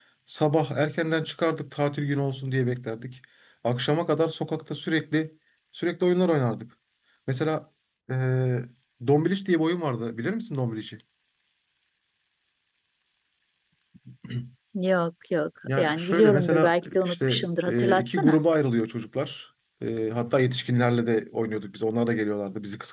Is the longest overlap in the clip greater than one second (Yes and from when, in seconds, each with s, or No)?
Yes, from 15.7 s